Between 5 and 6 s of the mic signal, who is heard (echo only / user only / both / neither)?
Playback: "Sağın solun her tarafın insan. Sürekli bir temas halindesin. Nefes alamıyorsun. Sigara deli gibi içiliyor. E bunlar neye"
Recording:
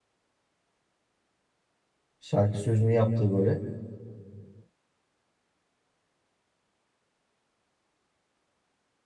neither